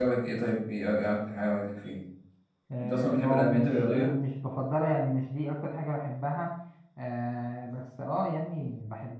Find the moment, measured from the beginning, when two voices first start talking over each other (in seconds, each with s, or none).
2.8 s